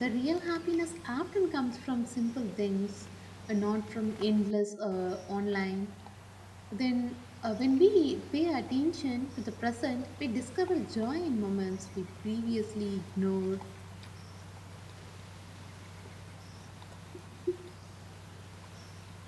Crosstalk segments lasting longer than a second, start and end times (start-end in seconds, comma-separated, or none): none